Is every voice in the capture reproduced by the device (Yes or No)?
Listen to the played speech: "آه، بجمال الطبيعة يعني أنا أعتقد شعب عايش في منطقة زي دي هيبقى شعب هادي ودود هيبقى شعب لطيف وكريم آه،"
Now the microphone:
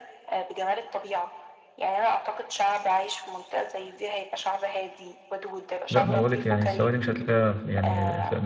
No